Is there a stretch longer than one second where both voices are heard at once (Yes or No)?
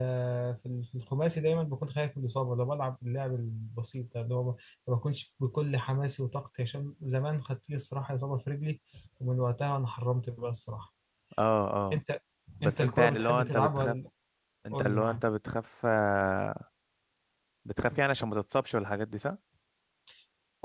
Yes